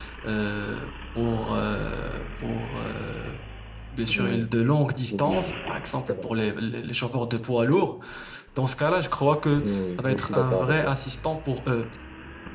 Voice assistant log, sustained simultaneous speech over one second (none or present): present